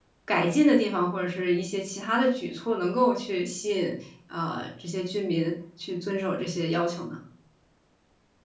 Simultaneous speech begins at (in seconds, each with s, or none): none